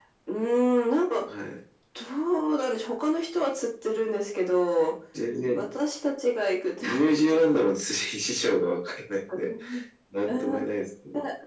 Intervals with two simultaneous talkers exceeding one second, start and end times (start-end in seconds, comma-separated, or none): none